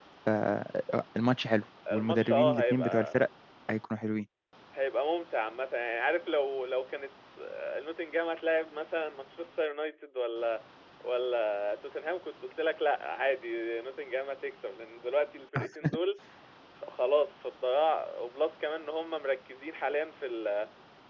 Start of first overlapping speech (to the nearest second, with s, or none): 2 s